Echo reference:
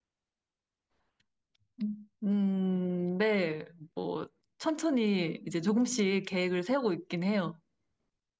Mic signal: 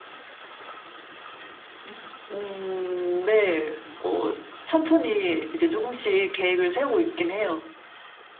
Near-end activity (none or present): none